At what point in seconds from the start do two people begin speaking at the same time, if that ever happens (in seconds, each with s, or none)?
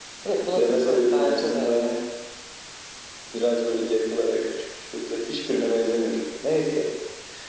0.6 s